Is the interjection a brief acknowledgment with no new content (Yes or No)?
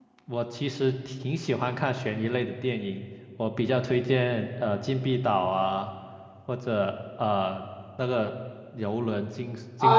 No